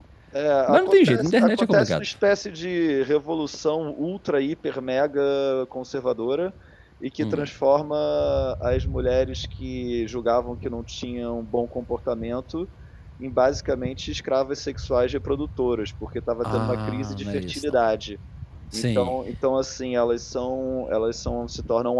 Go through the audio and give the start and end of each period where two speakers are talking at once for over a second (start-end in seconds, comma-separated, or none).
0.7-2.1, 16.4-17.8